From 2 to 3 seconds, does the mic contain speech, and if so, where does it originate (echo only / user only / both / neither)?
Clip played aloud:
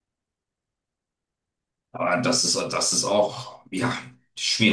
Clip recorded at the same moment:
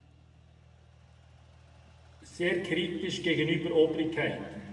user only